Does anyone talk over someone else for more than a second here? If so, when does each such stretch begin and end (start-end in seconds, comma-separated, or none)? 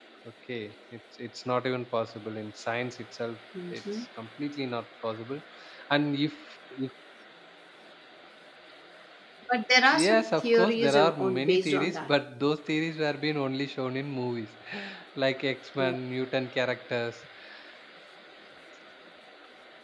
9.9-12.1